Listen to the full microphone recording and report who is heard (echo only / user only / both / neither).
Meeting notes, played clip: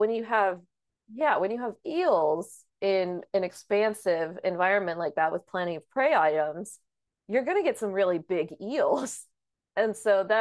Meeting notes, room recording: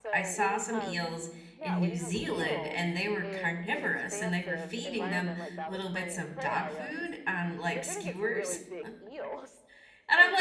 both